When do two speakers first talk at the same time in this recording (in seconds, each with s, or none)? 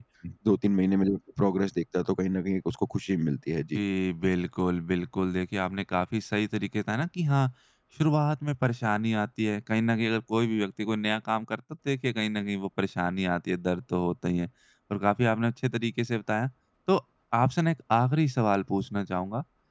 none